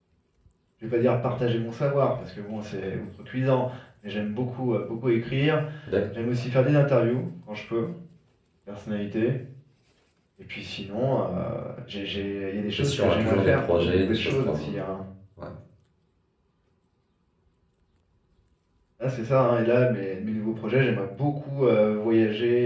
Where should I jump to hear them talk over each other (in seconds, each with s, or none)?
12.8 s